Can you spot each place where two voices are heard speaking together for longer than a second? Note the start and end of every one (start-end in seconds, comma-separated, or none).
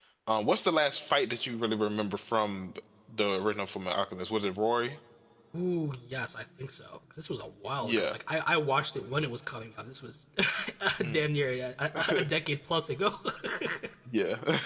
none